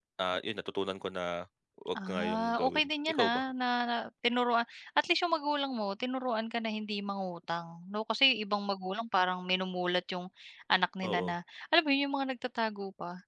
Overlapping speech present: Yes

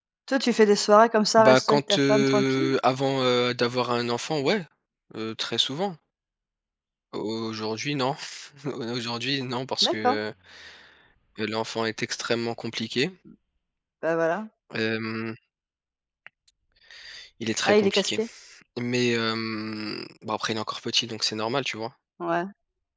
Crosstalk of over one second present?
Yes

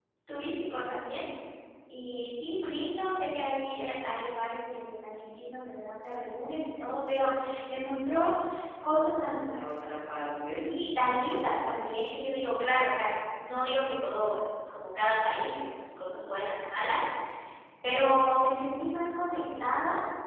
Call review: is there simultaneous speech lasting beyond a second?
No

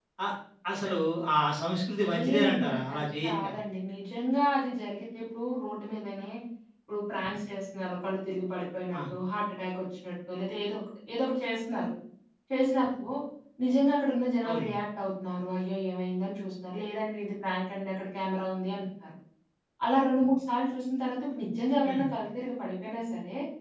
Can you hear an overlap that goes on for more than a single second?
Yes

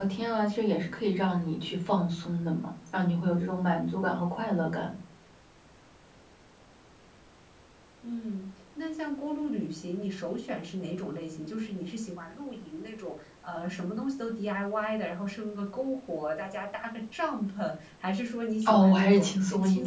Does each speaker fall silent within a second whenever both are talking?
No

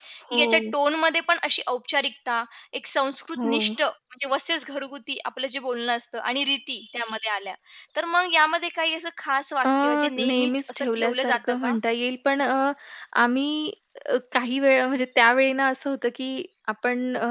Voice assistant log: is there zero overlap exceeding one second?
No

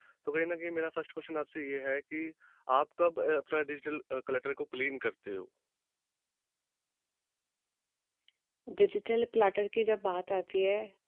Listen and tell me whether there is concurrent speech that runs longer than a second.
No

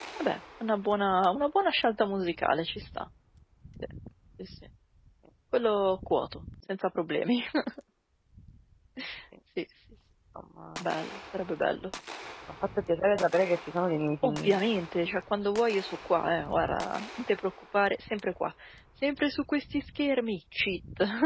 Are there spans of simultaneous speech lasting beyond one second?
No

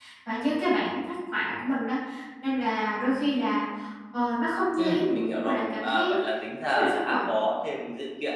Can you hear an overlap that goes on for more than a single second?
Yes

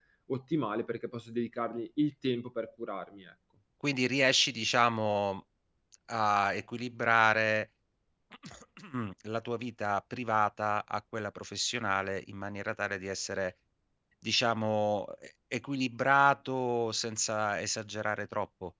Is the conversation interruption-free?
Yes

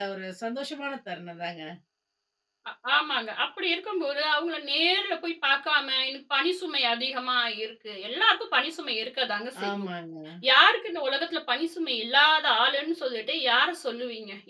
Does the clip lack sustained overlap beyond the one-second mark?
Yes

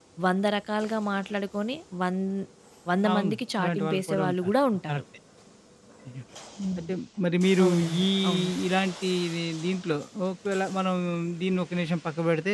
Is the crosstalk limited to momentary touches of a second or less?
No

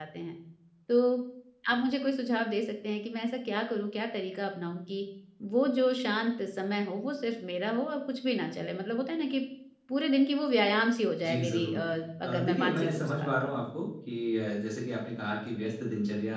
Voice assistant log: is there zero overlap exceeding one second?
No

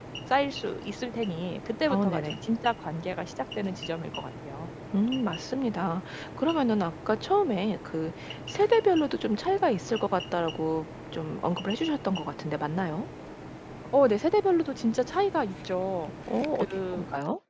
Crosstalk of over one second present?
No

